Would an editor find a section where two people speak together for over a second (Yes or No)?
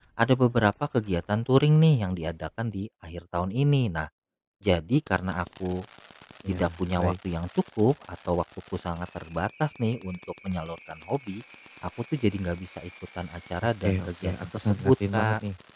Yes